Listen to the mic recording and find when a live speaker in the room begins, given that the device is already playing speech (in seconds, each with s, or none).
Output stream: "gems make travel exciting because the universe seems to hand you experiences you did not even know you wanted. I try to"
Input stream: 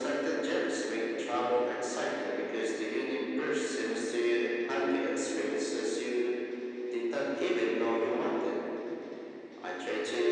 none